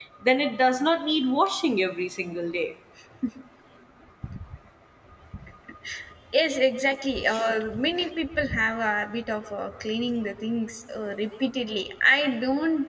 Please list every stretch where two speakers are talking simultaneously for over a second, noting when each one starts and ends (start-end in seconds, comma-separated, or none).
none